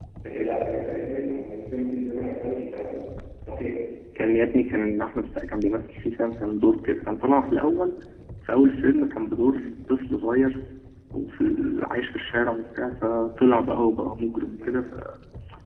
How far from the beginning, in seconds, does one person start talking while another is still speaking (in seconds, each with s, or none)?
none